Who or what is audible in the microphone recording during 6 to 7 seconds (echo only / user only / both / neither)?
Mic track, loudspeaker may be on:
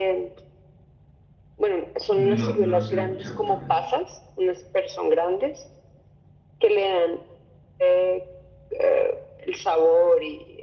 echo only